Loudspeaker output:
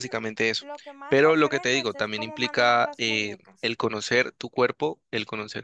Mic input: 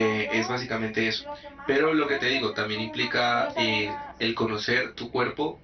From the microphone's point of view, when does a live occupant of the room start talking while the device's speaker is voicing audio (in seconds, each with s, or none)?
3.3 s